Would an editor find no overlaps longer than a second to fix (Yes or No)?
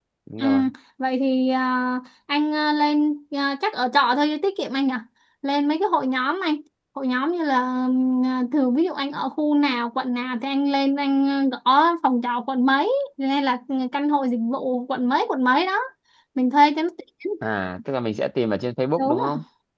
Yes